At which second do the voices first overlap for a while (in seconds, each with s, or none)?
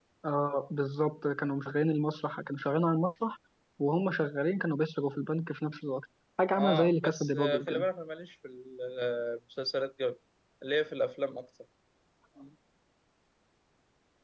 6.5 s